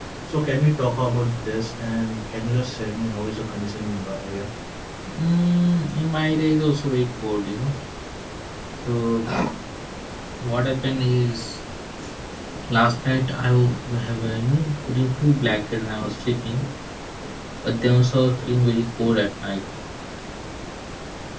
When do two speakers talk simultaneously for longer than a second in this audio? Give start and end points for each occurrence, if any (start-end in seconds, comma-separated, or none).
none